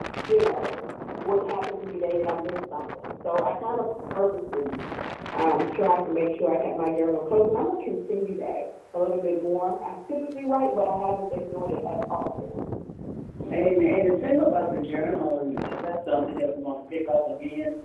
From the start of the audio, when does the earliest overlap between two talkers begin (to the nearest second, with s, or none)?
none